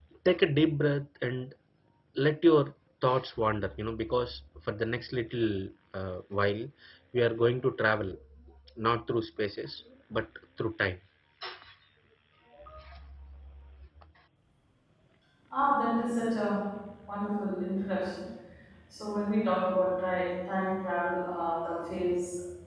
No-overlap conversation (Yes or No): Yes